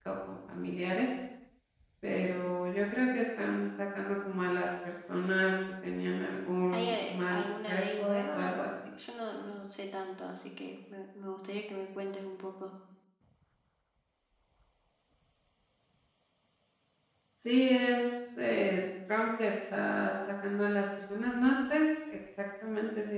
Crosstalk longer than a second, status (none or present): present